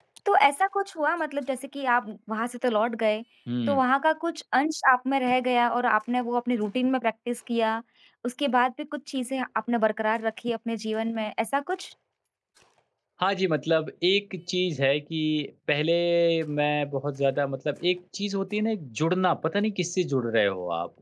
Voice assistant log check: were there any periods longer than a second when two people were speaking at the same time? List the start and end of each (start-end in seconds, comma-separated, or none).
none